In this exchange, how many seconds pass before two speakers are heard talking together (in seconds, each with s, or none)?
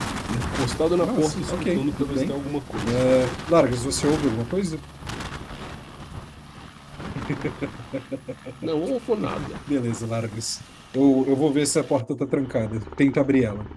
1.0 s